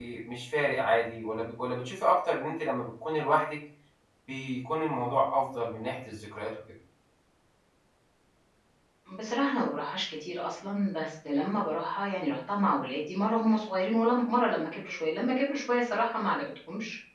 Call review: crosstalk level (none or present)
none